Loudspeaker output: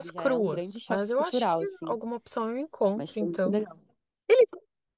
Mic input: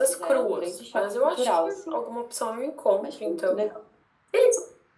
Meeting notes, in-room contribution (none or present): none